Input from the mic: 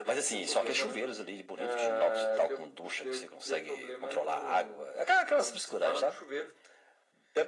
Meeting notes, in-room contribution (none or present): none